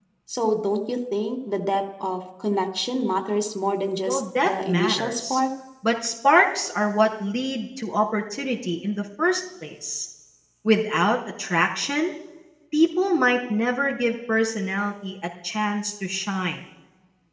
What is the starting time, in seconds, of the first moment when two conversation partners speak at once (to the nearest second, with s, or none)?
4 s